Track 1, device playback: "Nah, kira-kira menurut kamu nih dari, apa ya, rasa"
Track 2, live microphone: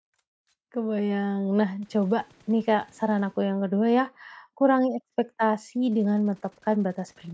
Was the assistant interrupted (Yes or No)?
Yes